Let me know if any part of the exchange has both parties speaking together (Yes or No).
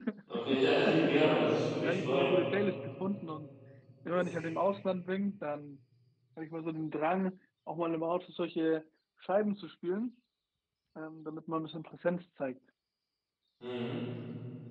Yes